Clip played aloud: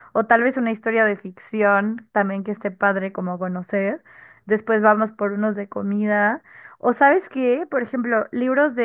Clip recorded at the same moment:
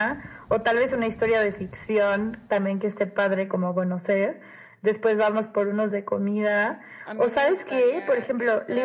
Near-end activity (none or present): present